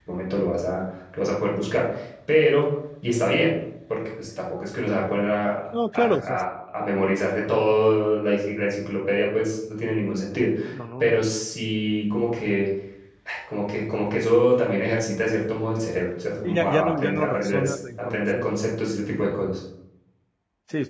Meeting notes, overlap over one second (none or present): present